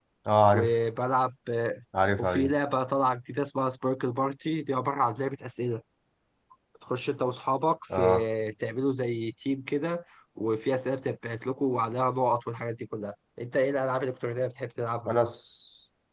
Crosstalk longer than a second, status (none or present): none